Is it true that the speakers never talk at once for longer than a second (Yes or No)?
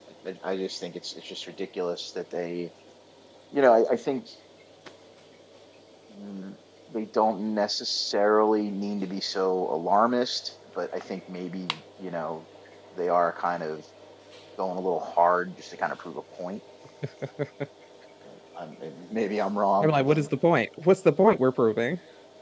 Yes